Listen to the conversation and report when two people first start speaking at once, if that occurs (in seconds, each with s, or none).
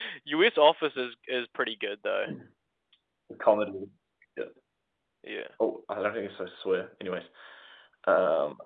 none